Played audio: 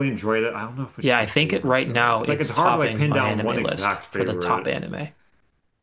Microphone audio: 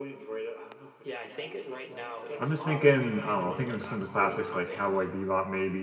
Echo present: Yes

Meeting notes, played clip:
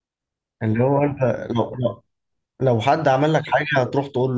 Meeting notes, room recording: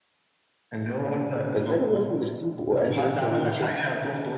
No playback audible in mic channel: No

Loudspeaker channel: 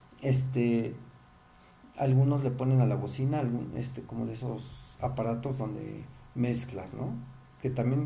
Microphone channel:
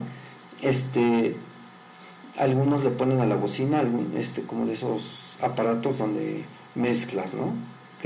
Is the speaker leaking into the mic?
Yes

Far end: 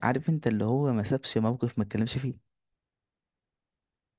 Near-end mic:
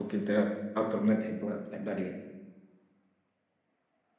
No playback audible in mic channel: Yes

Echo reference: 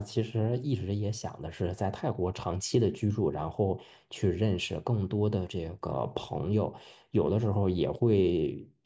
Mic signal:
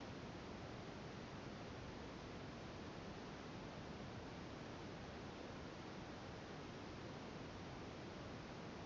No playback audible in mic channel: Yes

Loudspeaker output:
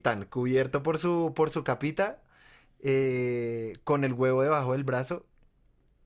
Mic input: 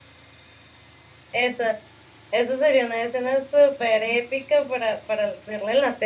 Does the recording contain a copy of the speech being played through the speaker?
No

